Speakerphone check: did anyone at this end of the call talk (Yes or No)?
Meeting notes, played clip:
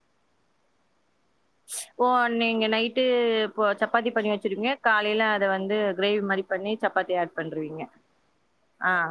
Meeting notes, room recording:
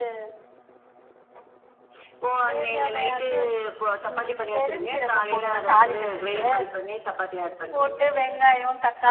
Yes